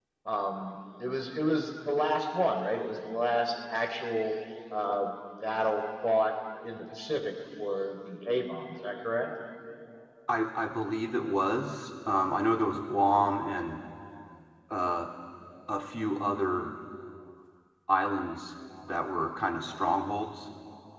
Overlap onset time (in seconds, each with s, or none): none